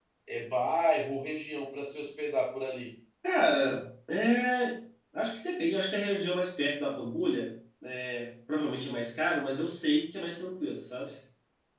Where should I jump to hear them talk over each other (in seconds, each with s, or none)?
none